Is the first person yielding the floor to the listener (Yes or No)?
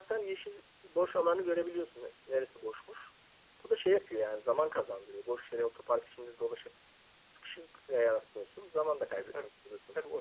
Yes